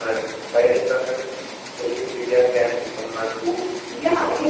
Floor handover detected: Yes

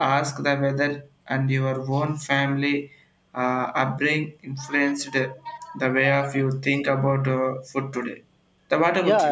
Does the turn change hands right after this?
Yes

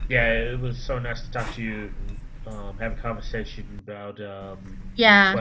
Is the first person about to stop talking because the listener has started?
Yes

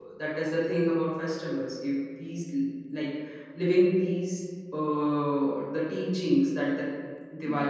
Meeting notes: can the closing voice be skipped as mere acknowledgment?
Yes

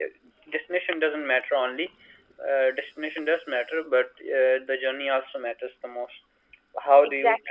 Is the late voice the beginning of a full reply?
No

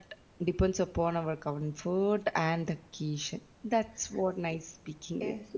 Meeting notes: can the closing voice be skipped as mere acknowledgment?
No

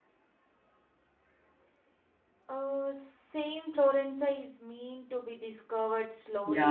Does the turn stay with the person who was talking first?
No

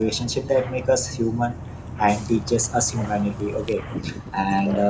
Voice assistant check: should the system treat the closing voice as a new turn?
No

